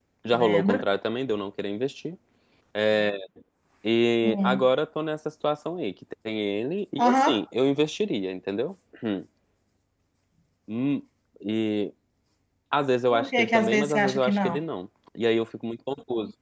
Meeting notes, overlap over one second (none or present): present